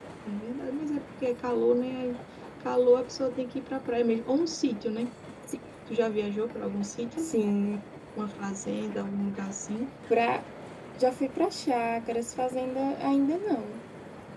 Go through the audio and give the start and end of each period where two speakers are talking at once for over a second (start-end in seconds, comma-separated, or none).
none